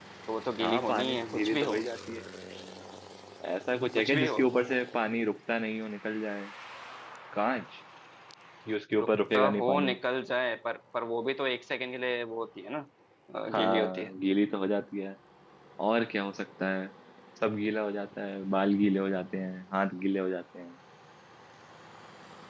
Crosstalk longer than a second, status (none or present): present